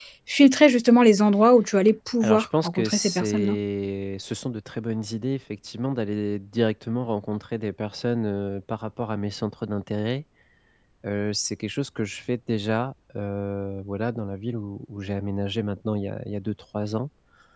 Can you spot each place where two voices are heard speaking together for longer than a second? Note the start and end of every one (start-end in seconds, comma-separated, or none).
2.2-3.5